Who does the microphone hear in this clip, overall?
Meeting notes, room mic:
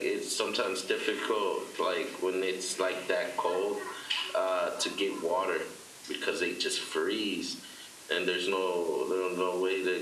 echo only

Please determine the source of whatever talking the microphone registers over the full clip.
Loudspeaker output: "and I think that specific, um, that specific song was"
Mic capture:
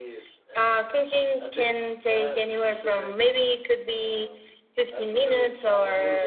both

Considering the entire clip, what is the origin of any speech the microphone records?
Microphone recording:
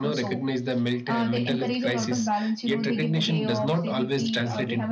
echo only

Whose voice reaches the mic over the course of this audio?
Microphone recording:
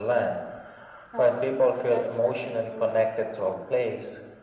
both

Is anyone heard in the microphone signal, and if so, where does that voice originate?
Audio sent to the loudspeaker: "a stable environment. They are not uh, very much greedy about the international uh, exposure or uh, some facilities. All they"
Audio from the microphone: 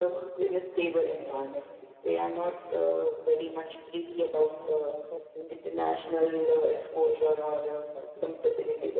both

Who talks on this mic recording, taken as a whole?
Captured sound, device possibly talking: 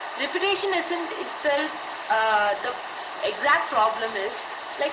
echo only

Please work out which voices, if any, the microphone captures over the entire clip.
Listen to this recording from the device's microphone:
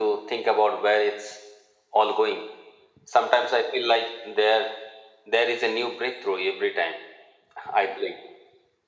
echo only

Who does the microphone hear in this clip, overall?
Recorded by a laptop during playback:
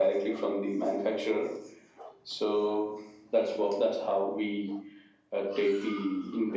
echo only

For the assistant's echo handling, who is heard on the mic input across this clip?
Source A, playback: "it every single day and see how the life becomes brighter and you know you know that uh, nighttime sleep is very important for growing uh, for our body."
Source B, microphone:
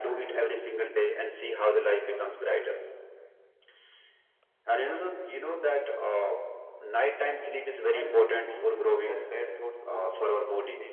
both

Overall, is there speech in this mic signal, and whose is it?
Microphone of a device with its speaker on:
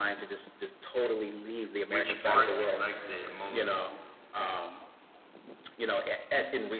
both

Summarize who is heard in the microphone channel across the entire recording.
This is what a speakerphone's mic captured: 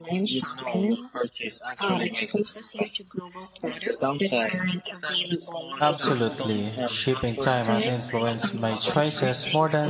both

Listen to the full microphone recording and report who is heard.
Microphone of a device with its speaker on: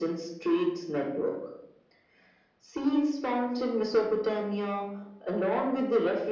echo only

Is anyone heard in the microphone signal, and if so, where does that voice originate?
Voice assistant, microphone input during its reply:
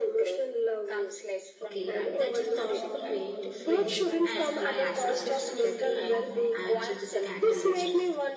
both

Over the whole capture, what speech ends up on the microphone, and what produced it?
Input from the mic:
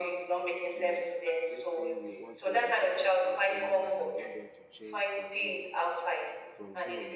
both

